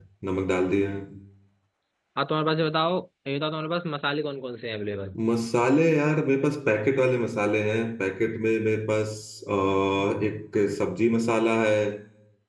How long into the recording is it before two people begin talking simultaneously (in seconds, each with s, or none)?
none